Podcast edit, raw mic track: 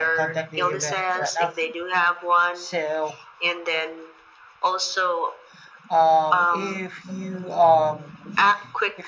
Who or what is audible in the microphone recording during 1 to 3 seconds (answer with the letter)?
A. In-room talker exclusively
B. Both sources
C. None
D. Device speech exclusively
B